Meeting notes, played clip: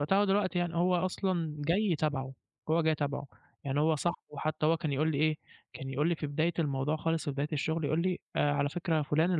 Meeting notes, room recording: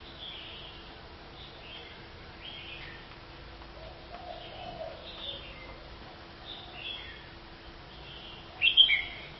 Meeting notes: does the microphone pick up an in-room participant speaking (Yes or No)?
No